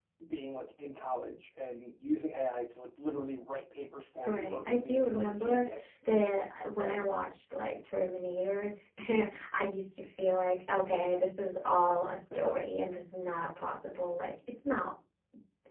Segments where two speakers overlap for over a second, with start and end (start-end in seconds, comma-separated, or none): 4.2-5.7